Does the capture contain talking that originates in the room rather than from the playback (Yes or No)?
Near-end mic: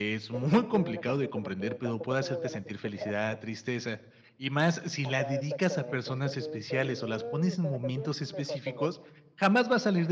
Yes